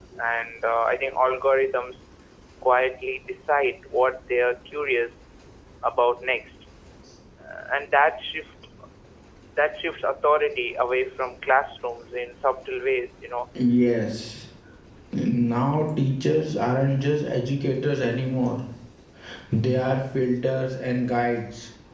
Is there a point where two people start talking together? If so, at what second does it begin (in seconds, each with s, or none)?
none